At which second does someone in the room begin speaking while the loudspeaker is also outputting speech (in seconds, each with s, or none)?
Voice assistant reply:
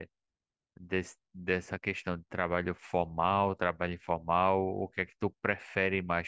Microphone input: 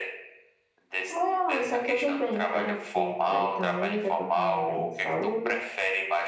1.1 s